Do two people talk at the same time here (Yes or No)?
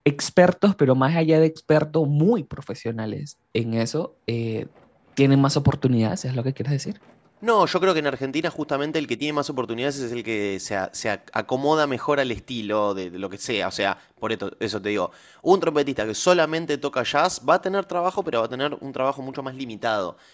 No